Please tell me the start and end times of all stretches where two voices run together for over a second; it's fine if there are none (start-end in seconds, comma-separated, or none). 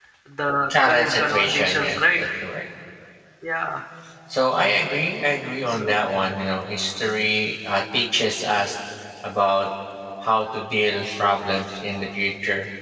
0.8-2.0